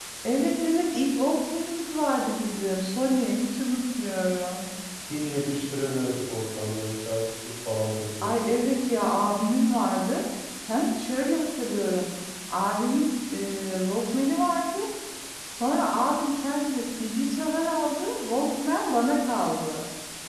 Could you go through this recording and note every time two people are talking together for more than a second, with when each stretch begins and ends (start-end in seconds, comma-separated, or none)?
none